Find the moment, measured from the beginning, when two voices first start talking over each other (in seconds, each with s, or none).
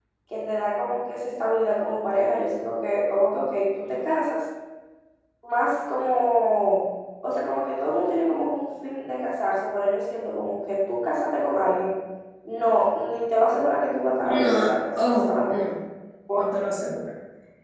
14.2 s